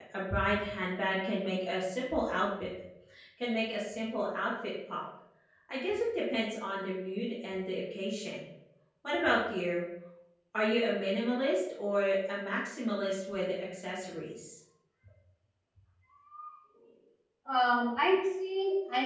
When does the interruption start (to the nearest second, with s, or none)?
none